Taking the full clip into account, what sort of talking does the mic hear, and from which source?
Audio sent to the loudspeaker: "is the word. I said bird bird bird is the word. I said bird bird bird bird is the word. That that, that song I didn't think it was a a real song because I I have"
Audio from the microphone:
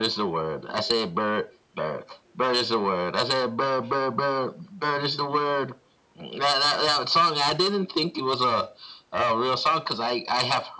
echo only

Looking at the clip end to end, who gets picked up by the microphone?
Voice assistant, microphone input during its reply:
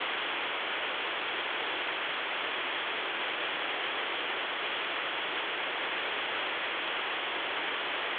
neither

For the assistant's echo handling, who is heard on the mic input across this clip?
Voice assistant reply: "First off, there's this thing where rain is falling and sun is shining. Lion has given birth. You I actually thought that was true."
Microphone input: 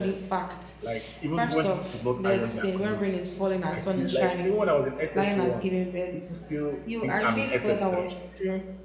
both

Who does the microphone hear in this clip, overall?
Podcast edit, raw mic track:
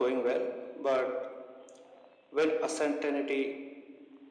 echo only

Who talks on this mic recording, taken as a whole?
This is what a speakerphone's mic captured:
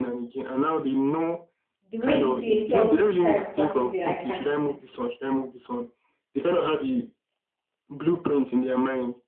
both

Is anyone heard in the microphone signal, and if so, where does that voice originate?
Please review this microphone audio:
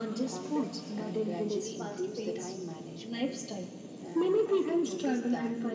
both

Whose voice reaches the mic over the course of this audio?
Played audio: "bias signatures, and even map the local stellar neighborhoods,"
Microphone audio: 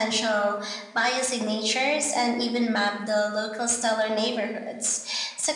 echo only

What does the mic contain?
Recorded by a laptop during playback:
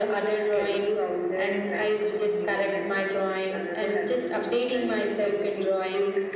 both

